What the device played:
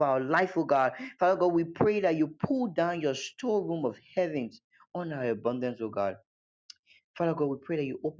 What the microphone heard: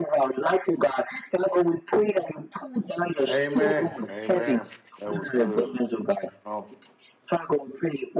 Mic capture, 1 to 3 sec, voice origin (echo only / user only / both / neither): echo only